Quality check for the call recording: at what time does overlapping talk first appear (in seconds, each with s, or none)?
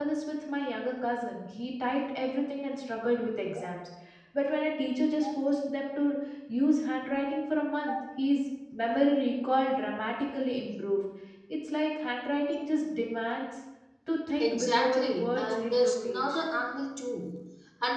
14.4 s